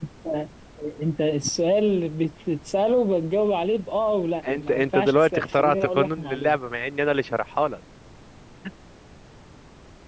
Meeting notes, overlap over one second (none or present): present